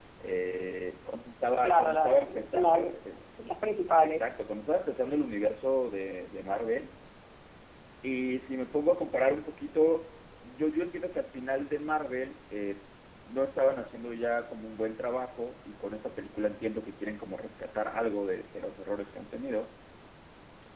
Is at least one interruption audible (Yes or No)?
Yes